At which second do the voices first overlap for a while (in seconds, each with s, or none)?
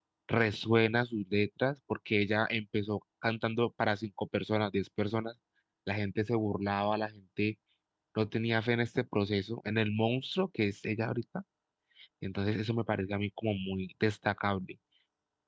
none